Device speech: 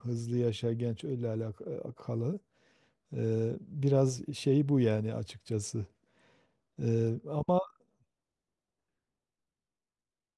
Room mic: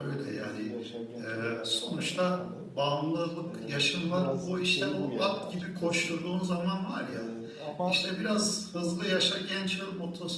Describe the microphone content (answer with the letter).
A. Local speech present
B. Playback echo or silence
A